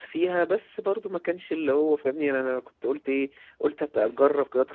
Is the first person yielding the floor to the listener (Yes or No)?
No